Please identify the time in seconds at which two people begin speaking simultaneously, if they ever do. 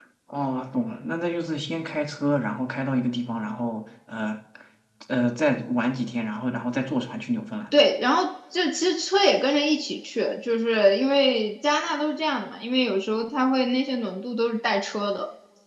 none

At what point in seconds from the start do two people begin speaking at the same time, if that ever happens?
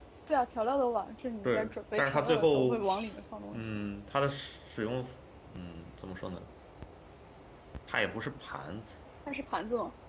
1 s

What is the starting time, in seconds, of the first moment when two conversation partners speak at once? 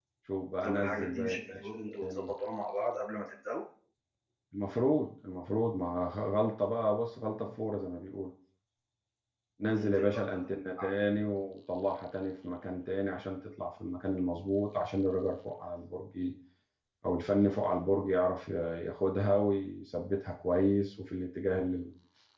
1 s

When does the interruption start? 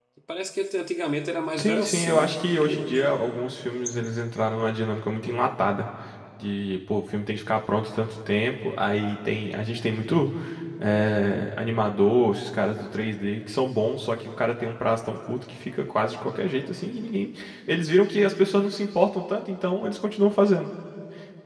2 s

